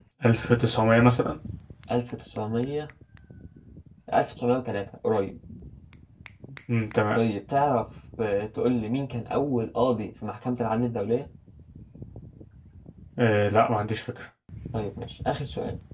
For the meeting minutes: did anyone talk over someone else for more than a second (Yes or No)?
No